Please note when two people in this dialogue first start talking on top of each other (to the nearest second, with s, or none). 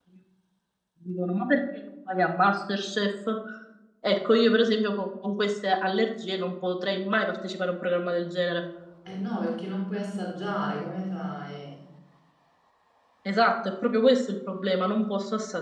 none